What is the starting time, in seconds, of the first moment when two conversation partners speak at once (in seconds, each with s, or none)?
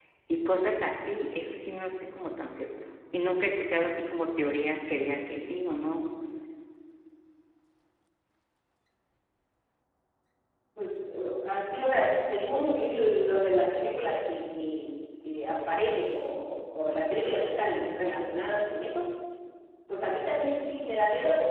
none